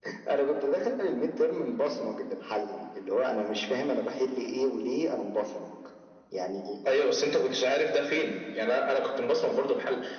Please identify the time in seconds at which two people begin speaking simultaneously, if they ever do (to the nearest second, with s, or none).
none